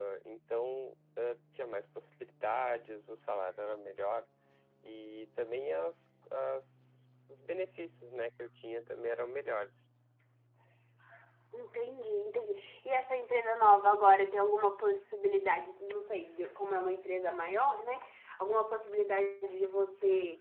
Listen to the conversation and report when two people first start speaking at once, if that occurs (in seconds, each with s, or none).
none